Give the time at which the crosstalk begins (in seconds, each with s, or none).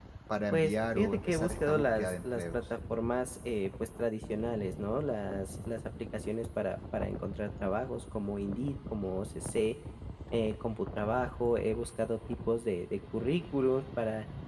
0.5 s